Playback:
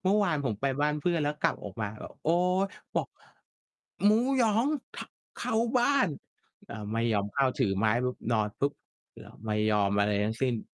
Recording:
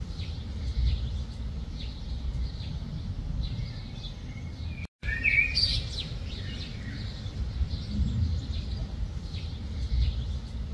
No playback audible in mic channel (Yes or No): Yes